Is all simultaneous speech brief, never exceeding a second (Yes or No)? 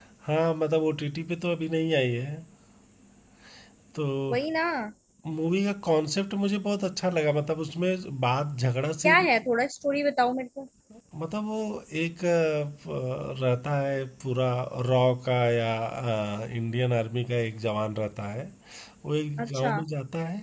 Yes